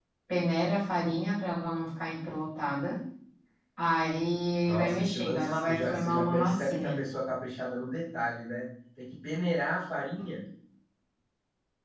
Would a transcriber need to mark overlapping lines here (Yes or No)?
Yes